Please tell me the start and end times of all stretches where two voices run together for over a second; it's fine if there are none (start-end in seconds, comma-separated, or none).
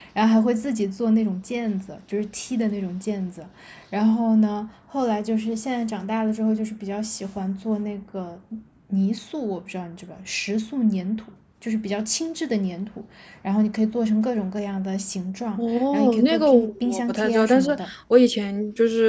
15.6-17.7